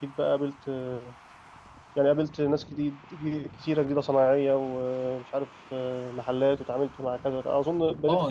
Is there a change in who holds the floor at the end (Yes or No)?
Yes